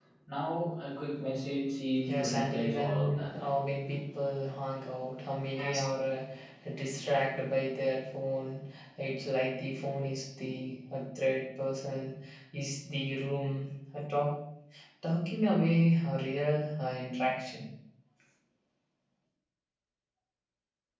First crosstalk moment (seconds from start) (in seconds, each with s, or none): 2.1 s